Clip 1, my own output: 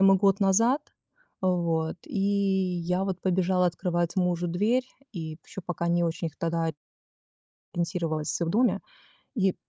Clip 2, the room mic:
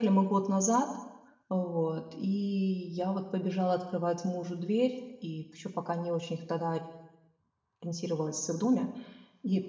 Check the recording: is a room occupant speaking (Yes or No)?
No